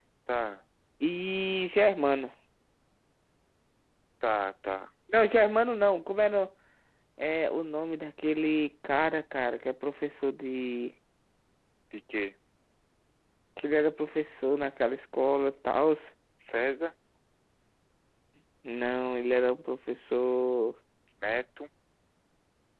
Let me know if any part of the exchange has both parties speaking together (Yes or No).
No